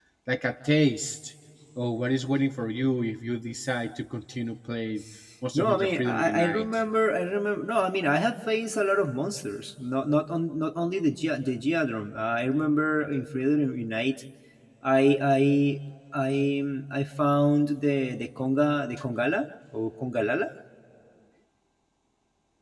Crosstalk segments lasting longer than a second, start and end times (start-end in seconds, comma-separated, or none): 5.5-6.8